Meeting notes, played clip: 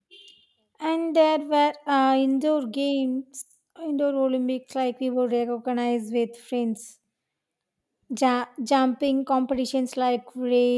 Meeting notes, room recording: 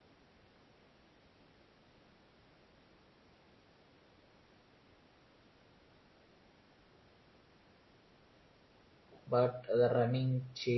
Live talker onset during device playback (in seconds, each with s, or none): 9.2 s